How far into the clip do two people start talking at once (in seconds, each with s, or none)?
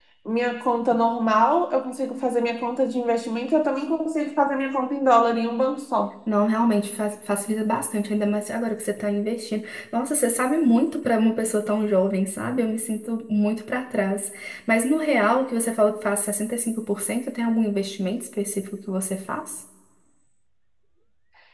none